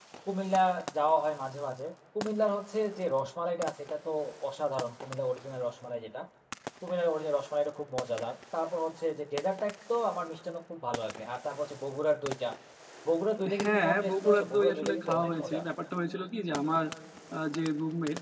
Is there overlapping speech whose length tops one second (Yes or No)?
Yes